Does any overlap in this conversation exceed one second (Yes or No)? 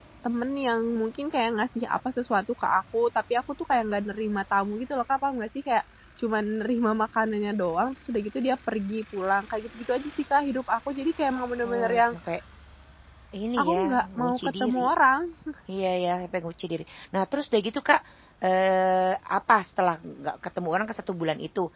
Yes